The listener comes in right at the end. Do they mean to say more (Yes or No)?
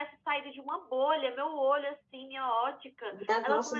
No